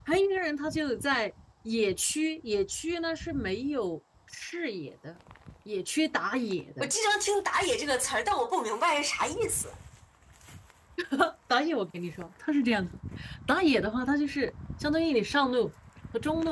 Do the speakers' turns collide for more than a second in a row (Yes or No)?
No